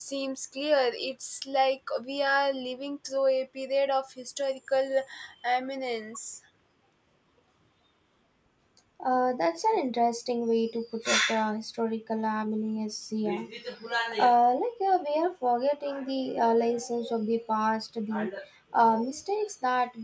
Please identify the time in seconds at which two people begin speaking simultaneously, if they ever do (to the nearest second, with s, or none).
none